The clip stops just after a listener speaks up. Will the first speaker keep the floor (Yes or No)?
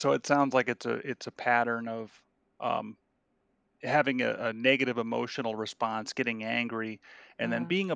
Yes